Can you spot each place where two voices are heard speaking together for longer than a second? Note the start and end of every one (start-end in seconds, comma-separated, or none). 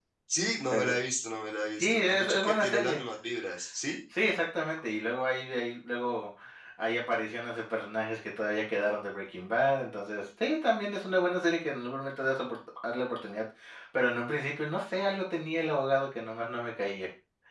1.8-3.0